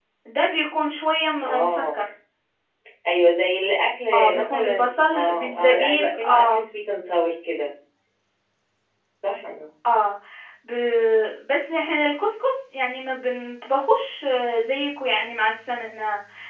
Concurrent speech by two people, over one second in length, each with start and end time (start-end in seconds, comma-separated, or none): 4.1-6.6